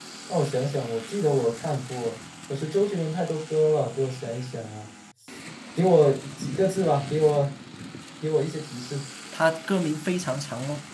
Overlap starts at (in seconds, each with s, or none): none